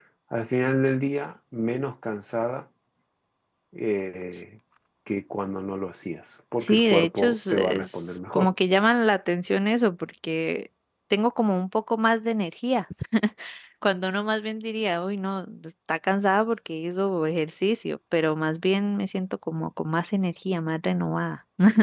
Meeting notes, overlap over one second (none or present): present